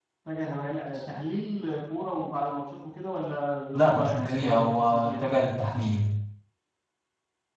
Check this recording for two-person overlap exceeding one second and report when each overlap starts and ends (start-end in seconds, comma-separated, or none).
3.8-5.2